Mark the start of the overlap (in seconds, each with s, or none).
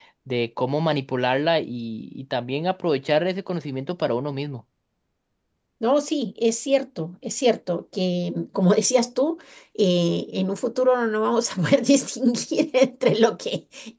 none